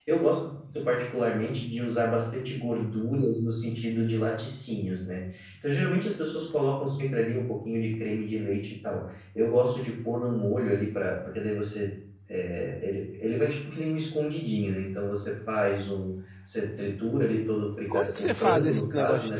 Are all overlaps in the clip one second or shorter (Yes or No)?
No